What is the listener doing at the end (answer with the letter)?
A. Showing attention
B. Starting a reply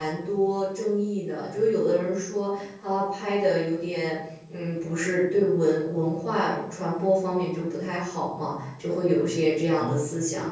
B